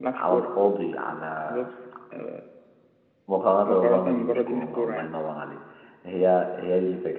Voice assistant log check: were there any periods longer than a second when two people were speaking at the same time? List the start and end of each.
3.7-5.1

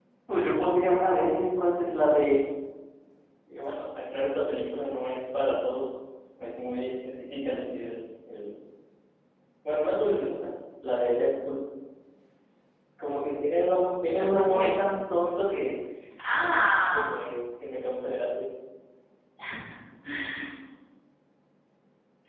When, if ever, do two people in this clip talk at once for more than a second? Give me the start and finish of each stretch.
none

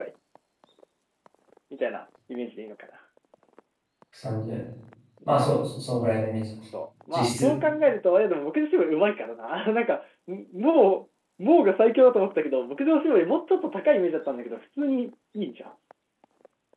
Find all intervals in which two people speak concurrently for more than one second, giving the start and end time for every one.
none

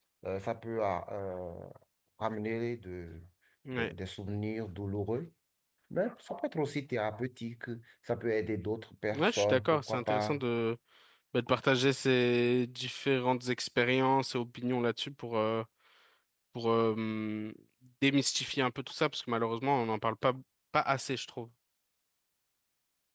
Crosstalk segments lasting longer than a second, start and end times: 9.1-10.4

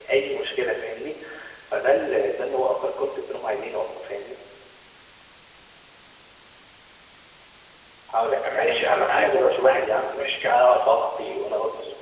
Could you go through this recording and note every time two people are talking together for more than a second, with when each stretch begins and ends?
8.2-10.7

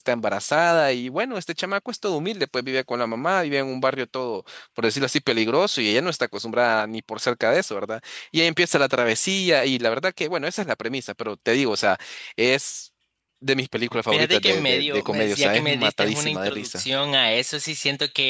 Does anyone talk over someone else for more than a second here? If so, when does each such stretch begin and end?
14.1-16.8

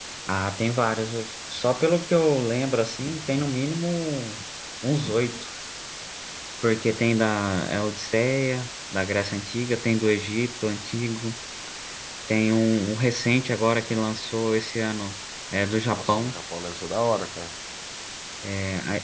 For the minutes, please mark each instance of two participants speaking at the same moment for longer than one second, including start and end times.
none

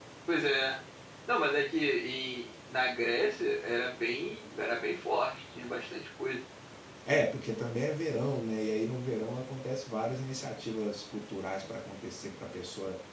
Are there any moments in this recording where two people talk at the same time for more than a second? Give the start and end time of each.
none

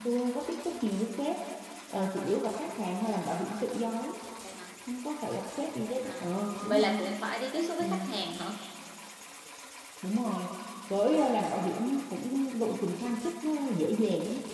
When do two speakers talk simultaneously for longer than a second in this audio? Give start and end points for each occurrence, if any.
none

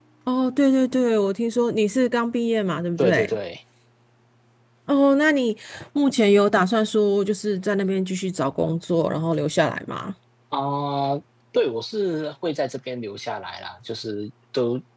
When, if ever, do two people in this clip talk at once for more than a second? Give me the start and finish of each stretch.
none

